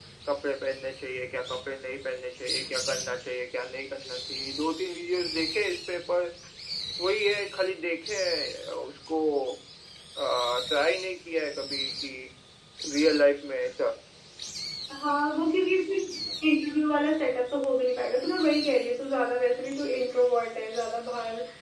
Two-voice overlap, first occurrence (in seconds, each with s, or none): none